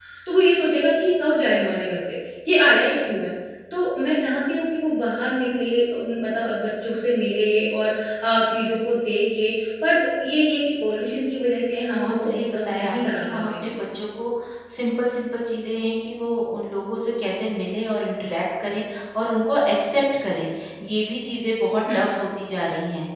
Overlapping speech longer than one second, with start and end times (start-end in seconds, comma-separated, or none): 11.9-13.7